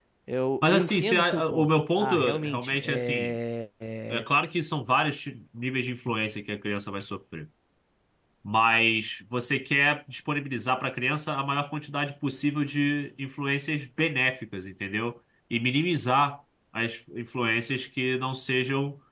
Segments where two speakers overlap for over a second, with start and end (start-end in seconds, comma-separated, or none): 0.6-3.3